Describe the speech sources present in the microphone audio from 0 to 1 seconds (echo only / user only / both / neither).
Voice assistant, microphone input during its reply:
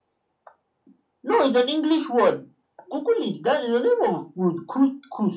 neither